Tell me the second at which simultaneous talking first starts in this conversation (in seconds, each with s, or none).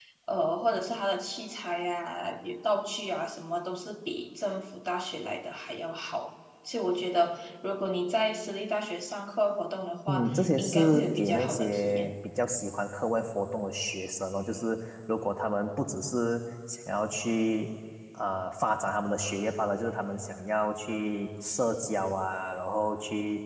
10.1 s